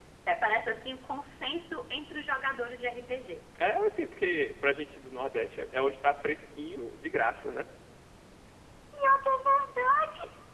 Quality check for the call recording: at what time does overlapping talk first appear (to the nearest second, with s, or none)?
none